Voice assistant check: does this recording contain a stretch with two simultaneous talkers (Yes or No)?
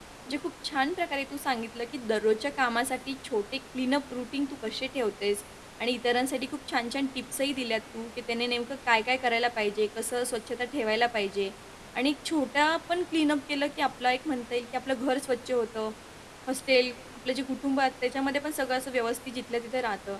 No